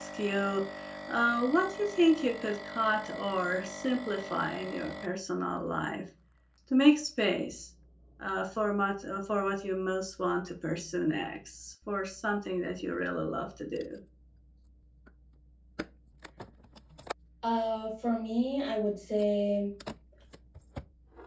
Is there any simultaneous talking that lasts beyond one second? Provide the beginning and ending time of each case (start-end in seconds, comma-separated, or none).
none